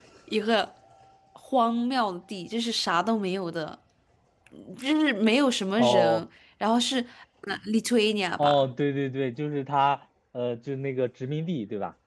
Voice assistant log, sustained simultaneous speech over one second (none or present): none